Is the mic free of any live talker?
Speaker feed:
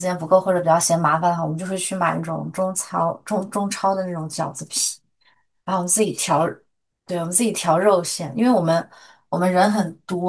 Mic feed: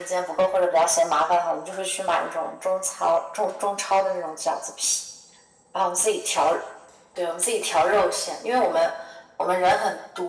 Yes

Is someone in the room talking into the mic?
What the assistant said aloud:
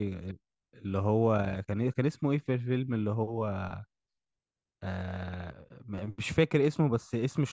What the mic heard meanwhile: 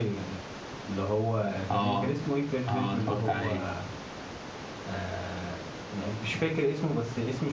Yes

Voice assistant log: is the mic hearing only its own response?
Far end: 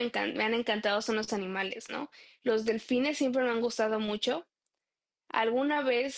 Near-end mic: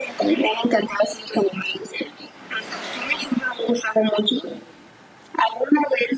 Yes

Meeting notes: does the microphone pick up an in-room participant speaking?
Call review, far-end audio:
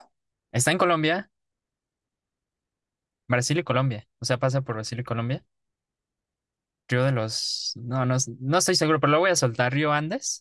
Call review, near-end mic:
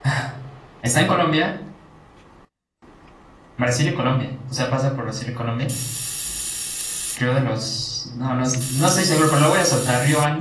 No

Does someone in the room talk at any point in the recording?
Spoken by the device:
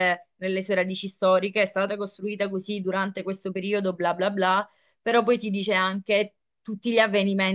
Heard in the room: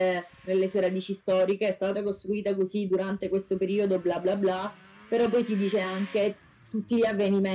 No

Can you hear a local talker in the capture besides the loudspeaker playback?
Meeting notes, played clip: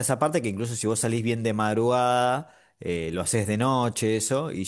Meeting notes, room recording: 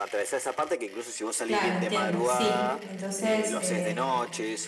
Yes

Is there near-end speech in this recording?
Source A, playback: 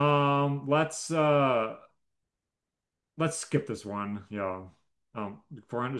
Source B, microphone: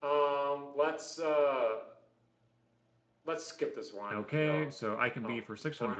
Yes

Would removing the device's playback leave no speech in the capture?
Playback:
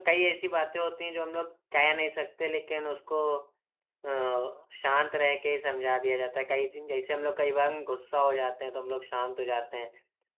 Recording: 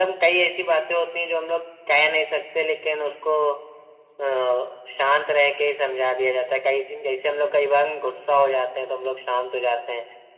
Yes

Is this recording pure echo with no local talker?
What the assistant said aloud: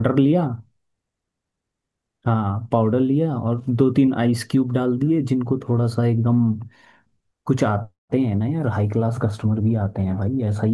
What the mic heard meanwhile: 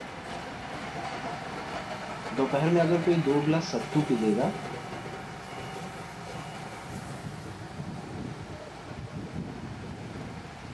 No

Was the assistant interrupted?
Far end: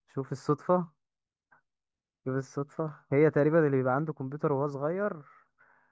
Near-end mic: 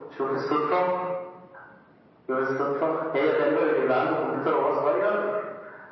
No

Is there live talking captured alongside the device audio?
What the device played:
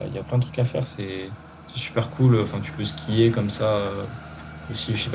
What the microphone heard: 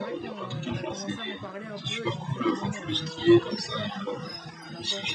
Yes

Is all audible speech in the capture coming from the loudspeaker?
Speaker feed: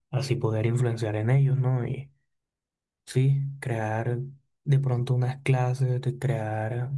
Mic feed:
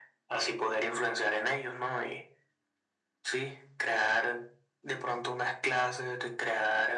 Yes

